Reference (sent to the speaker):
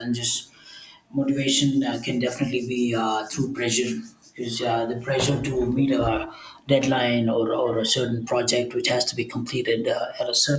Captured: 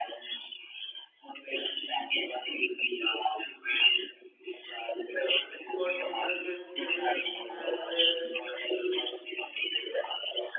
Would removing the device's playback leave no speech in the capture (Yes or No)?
No